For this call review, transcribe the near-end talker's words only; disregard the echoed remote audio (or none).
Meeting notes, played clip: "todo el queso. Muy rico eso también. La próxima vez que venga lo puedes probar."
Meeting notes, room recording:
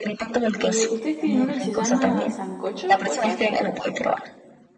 ¿Y ustedes tienen uno que se llama sancocho, puede ser?